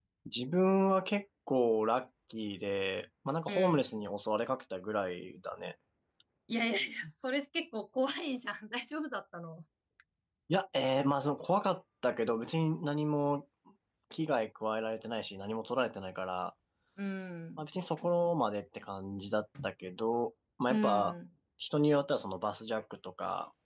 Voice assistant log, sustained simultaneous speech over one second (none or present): none